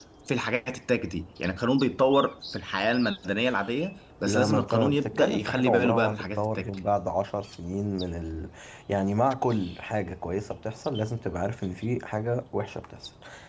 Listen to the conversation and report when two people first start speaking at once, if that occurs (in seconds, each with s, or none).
4.2 s